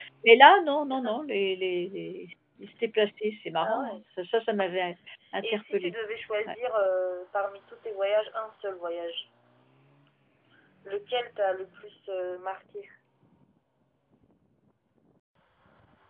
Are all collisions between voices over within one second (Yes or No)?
Yes